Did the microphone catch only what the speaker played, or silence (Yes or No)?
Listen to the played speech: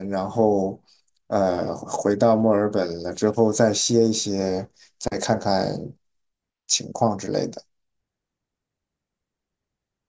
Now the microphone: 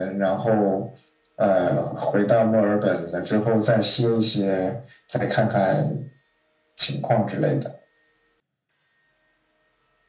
Yes